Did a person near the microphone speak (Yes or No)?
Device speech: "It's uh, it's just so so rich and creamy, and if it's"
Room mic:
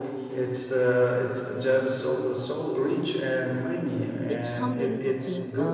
Yes